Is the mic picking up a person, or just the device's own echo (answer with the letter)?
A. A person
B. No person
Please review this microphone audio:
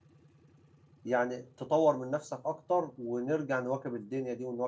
A